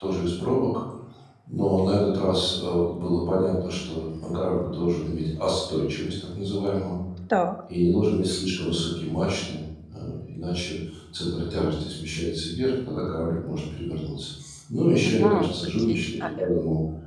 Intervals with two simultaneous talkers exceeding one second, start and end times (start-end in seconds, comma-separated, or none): 15.0-16.5